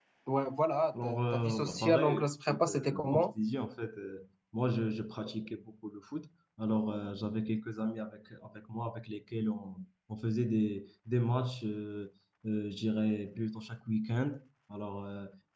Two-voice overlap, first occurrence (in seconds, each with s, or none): 1.0 s